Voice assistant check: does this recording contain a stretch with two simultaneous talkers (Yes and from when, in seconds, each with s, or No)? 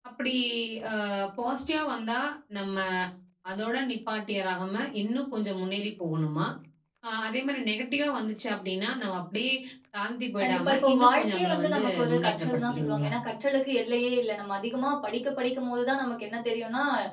Yes, from 10.4 s